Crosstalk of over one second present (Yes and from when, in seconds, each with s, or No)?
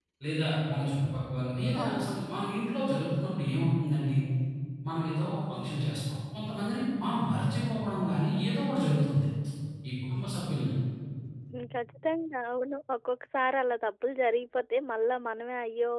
No